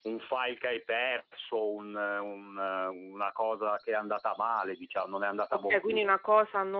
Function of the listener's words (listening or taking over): taking over